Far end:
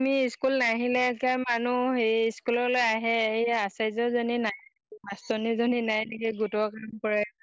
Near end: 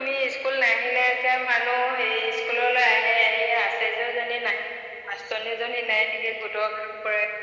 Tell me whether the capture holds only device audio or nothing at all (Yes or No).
Yes